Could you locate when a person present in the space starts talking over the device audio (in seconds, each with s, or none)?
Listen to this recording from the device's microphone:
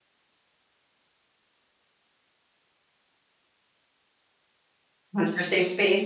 5.1 s